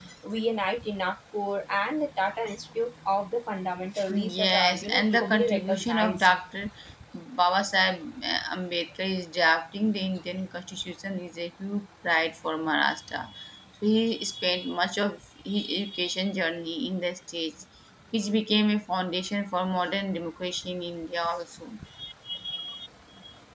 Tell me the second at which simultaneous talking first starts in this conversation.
4 s

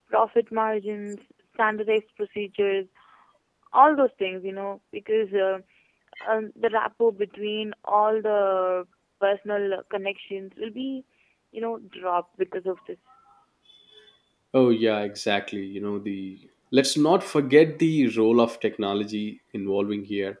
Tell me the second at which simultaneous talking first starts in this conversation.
none

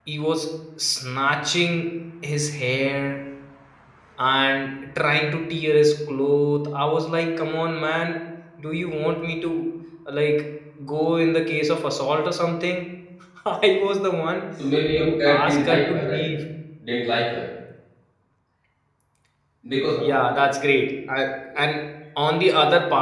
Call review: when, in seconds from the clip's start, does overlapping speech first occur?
15 s

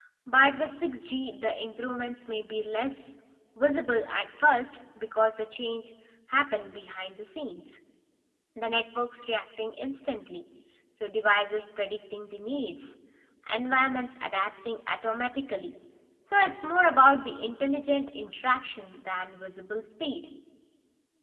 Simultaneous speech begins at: none

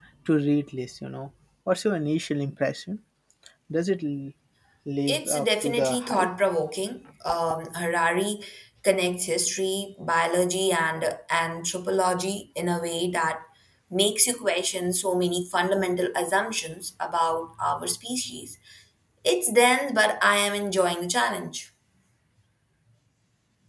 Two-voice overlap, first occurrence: 5 s

